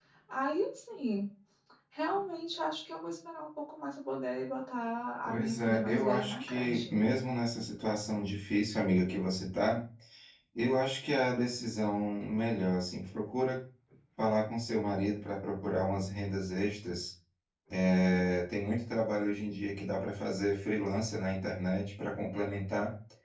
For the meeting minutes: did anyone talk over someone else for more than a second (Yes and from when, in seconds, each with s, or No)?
Yes, from 5.3 s